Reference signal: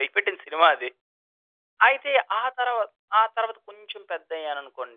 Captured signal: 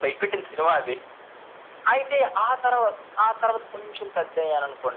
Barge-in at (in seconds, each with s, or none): none